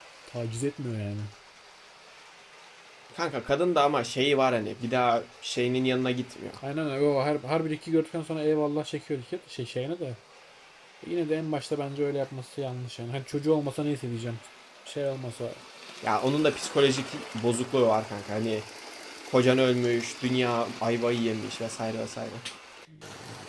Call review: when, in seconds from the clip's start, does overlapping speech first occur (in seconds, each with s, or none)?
none